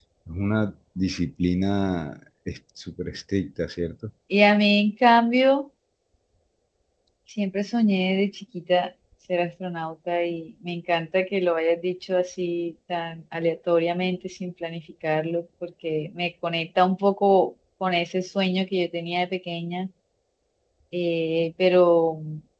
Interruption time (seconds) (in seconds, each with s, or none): none